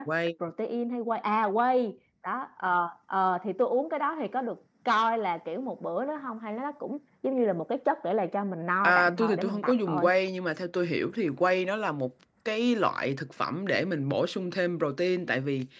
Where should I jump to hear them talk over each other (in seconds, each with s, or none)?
8.8 s